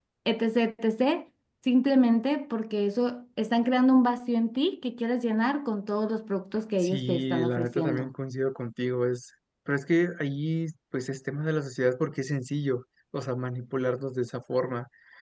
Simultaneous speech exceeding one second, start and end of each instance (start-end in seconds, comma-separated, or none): 6.8-8.1